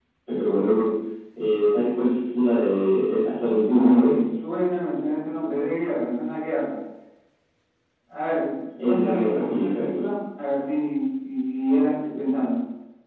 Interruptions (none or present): present